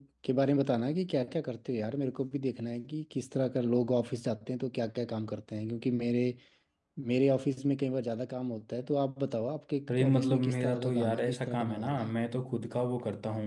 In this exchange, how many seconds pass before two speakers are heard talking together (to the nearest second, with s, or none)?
10 s